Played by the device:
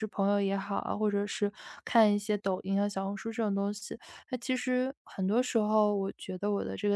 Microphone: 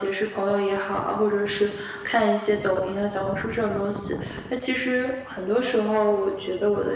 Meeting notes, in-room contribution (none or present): none